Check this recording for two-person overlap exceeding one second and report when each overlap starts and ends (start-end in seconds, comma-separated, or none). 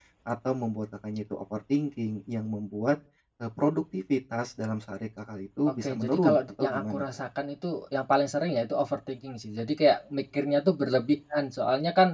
5.7-7.1